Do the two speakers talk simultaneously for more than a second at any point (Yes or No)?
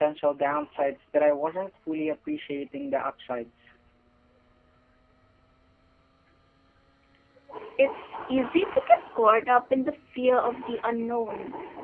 No